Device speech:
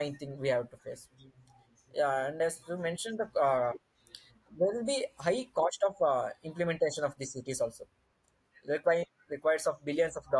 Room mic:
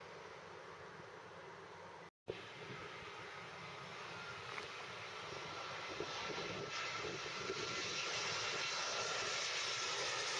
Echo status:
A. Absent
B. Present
A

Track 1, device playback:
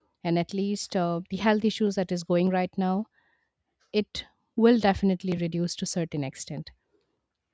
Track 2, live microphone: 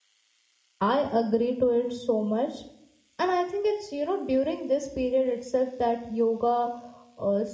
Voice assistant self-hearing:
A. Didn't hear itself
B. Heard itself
A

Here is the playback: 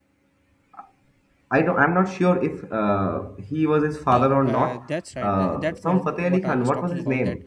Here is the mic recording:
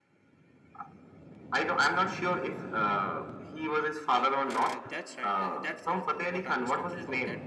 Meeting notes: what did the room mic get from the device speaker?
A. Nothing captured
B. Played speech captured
B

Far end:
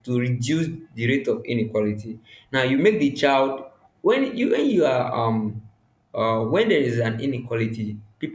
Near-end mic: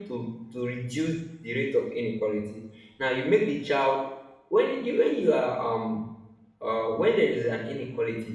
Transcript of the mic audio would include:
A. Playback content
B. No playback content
A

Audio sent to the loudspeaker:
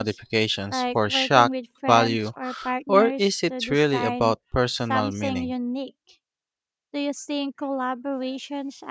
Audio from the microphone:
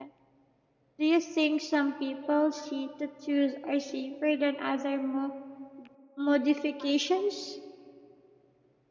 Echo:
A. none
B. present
A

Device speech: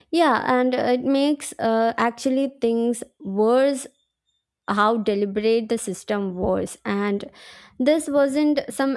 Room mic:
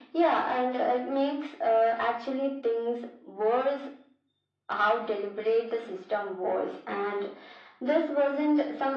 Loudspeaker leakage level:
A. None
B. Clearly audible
B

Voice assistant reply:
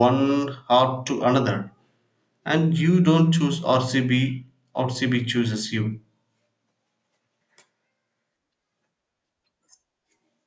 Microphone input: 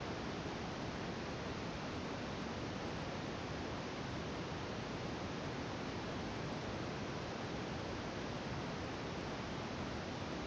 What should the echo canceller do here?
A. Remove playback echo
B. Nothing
B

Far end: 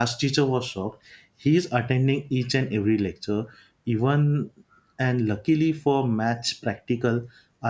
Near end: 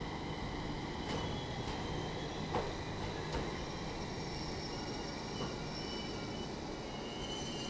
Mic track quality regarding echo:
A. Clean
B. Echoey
A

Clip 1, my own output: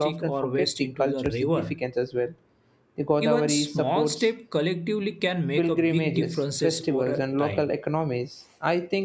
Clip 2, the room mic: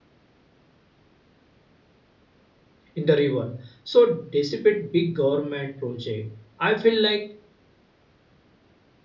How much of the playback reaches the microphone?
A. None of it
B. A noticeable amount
A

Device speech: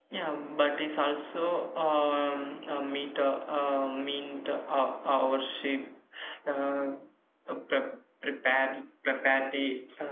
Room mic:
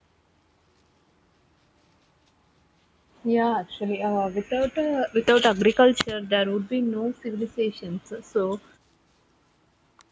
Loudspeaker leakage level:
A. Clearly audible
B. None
B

